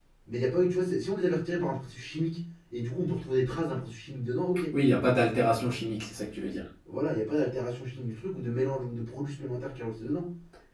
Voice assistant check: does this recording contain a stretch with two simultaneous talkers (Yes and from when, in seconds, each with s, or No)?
No